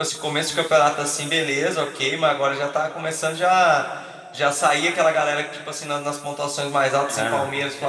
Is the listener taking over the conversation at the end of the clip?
No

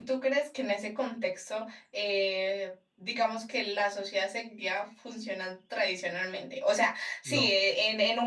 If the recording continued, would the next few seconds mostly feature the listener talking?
No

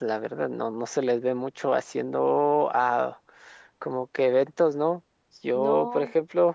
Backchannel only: Yes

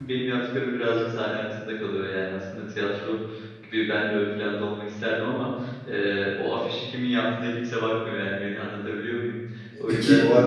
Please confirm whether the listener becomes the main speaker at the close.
Yes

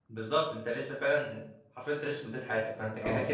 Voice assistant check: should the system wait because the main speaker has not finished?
Yes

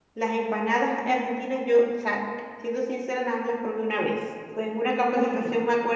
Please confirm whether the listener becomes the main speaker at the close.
No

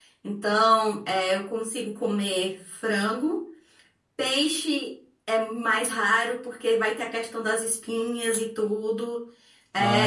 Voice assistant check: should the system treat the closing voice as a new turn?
No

